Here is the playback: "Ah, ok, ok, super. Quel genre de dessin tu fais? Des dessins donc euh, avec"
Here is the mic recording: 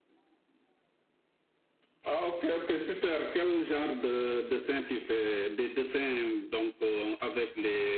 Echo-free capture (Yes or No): No